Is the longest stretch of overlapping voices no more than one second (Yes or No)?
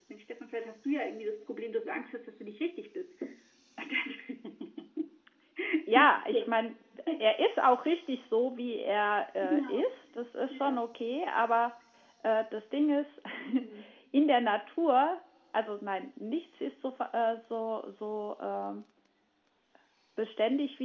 Yes